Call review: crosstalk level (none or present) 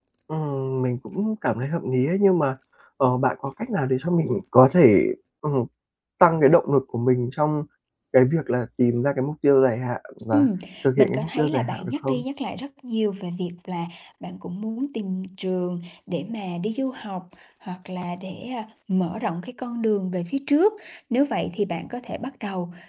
present